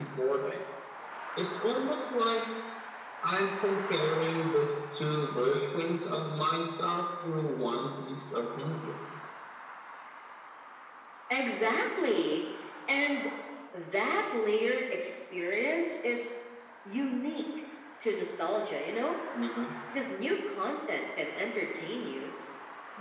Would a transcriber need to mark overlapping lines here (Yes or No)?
No